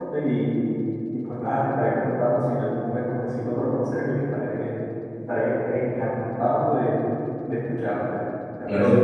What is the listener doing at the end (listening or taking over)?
taking over